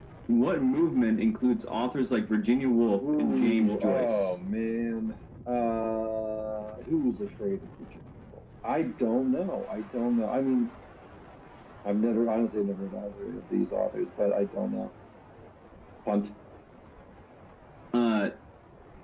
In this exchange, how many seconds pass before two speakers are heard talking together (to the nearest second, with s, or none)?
3 s